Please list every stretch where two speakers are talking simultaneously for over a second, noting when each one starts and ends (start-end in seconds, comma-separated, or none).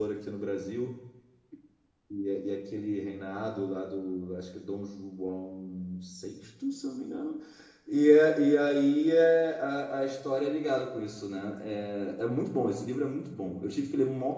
none